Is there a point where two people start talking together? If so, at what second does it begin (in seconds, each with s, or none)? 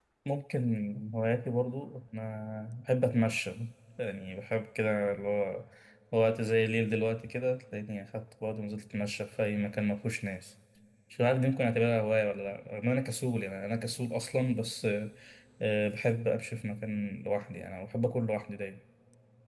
none